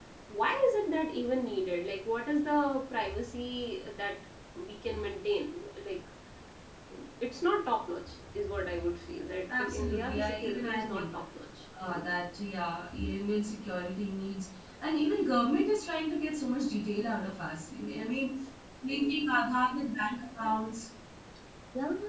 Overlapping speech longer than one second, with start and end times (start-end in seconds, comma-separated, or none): 9.5-11.1